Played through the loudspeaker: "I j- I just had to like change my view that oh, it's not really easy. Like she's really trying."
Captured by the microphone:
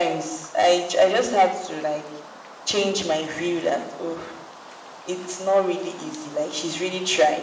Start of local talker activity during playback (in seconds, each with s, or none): none